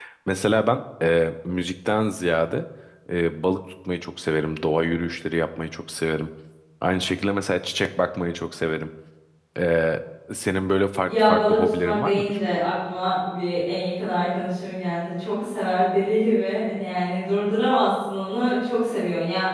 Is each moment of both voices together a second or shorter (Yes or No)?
No